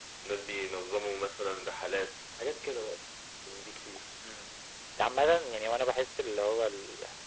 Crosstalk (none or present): none